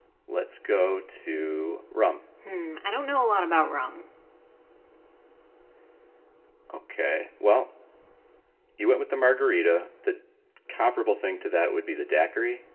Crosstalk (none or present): none